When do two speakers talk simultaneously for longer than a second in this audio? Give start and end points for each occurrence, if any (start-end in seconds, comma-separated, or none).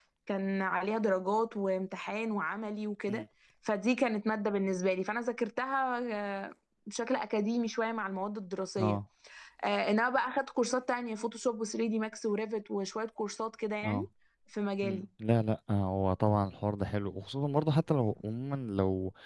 none